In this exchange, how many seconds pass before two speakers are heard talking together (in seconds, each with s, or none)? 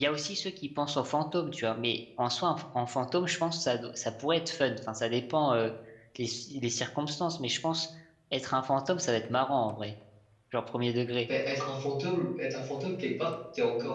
none